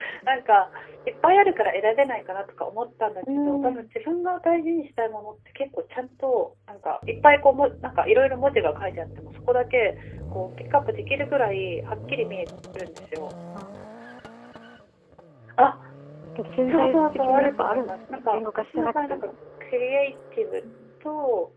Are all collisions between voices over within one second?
No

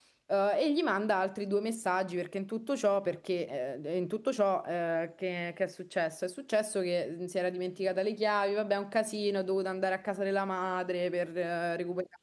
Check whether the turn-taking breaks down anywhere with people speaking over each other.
No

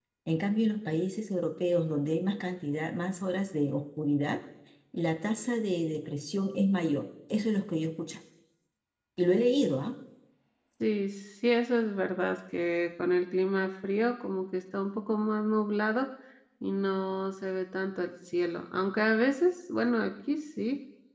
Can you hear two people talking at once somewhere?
No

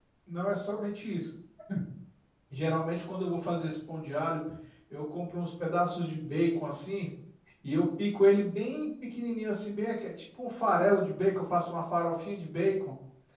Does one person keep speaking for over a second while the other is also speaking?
No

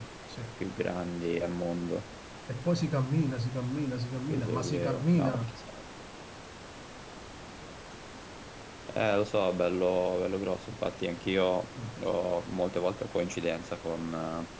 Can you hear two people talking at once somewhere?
Yes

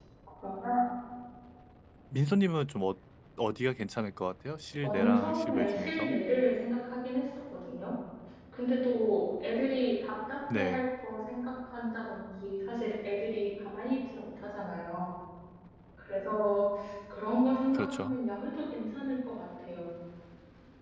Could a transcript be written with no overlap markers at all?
No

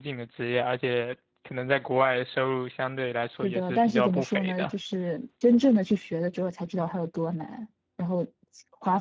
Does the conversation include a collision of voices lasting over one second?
Yes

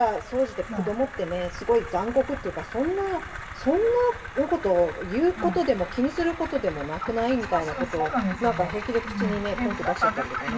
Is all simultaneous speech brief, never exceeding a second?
No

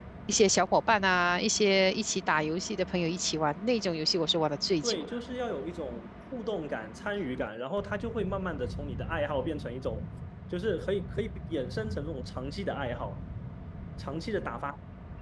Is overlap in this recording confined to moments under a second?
Yes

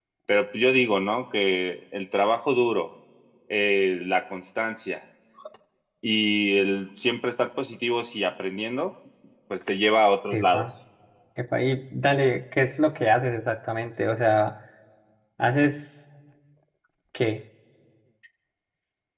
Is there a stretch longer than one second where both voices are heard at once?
No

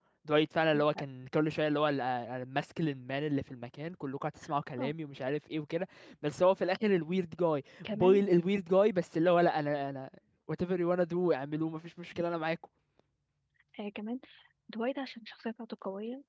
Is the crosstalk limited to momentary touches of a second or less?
Yes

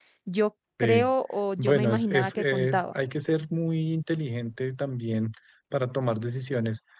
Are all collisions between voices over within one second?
No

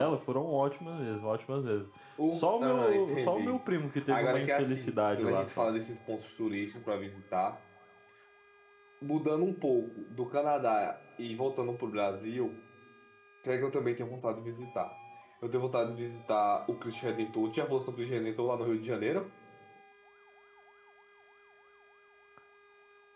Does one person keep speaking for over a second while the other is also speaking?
Yes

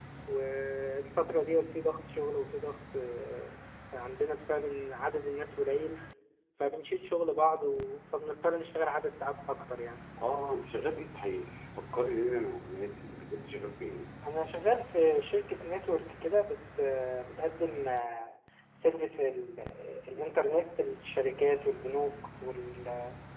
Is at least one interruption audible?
No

